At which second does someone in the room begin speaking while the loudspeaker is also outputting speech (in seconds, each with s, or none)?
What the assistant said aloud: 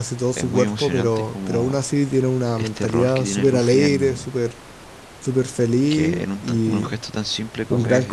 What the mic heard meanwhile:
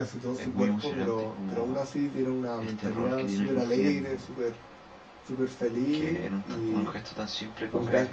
none